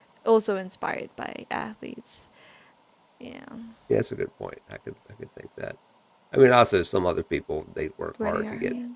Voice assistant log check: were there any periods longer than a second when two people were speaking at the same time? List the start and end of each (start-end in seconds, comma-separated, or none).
none